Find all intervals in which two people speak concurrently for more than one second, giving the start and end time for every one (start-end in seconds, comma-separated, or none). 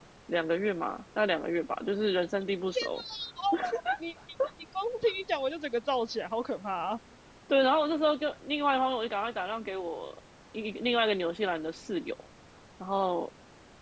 none